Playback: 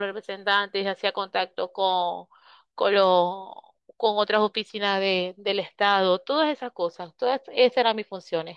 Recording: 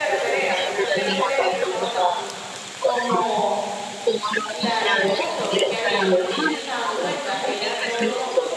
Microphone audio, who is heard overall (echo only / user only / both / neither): both